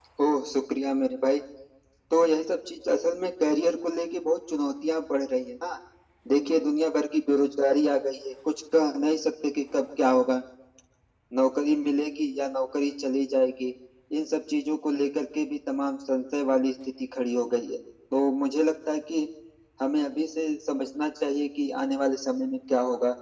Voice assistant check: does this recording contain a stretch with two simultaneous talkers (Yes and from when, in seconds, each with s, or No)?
No